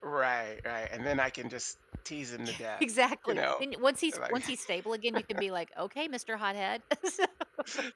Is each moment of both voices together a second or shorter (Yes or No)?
Yes